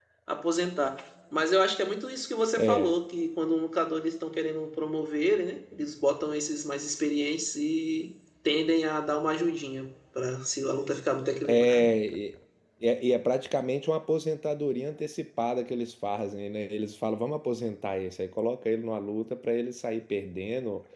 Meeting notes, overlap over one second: none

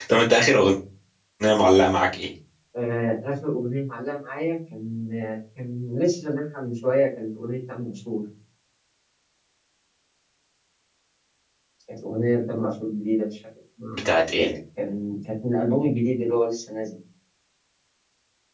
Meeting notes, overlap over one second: none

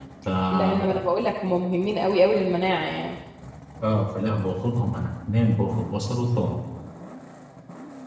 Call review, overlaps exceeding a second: none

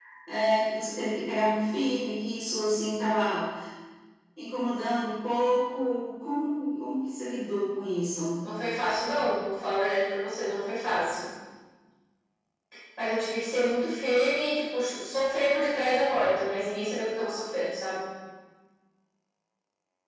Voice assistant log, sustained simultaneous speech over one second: none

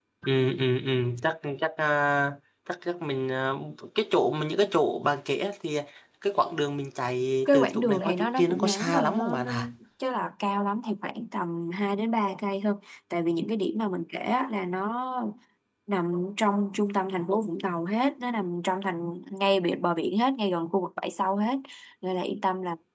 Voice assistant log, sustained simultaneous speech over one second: present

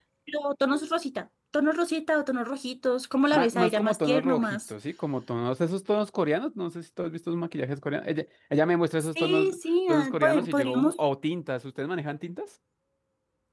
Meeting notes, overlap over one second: present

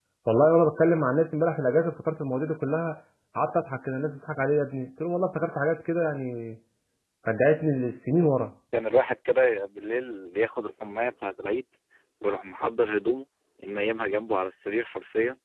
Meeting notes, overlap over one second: none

